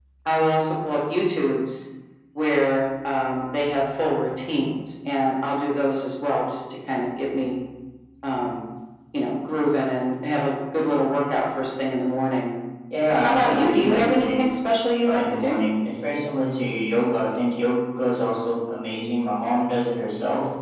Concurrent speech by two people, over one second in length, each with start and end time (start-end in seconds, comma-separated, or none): 13.2-14.4